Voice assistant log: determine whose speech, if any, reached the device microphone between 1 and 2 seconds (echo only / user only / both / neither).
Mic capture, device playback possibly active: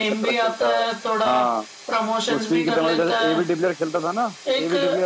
both